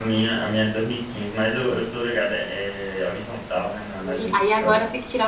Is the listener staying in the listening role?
No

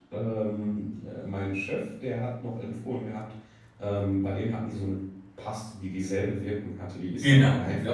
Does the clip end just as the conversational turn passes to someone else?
Yes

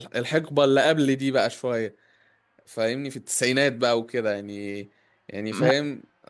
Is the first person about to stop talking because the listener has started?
No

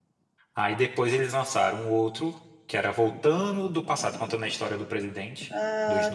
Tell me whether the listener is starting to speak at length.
Yes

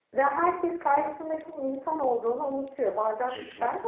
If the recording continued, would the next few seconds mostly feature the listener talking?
No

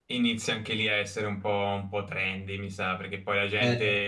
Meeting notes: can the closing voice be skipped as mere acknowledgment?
Yes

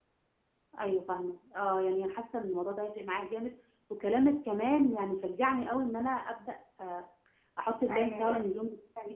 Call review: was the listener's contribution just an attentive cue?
Yes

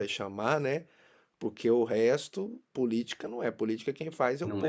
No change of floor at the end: Yes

